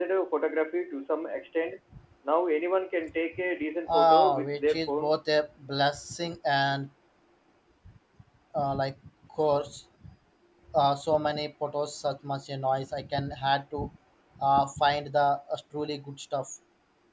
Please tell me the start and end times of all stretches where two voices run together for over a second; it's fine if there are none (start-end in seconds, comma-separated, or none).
3.9-5.1